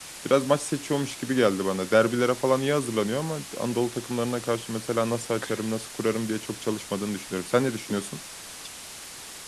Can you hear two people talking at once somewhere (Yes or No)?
No